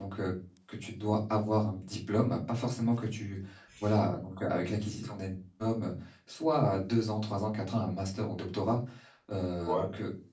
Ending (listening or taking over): listening